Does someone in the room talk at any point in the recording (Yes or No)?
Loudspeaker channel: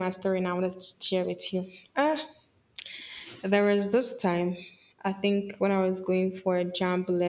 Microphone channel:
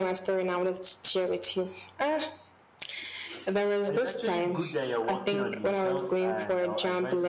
Yes